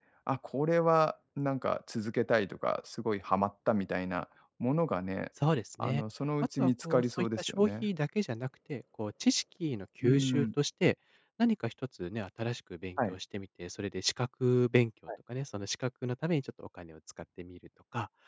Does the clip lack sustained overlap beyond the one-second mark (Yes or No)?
No